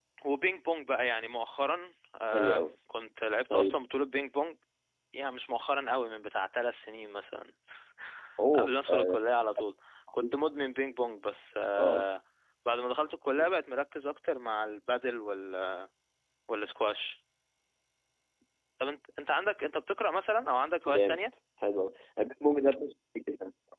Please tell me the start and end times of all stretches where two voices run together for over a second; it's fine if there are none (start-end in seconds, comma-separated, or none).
none